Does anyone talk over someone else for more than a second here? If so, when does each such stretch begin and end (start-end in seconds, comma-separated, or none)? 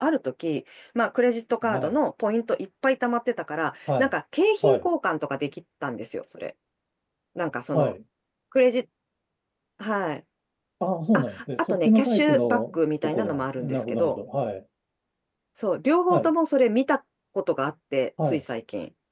11.1-14.2